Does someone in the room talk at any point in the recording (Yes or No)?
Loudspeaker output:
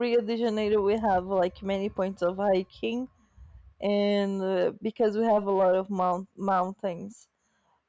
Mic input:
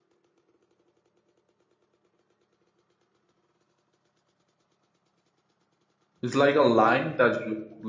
Yes